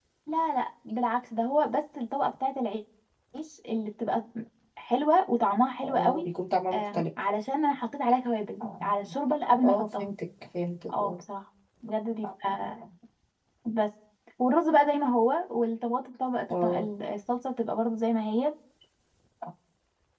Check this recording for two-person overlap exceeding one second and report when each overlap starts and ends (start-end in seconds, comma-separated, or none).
none